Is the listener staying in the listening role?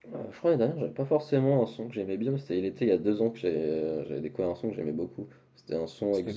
Yes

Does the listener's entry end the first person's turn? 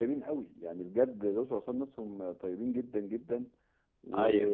No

